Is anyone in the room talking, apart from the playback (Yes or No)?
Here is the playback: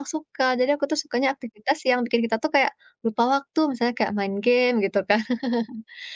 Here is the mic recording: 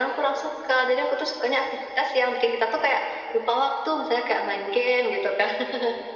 No